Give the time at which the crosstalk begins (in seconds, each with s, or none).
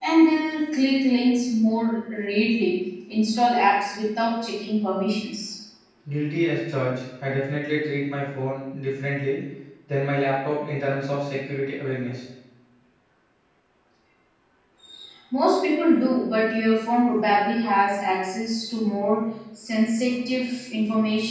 none